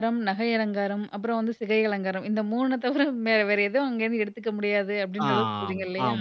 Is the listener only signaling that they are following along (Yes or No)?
No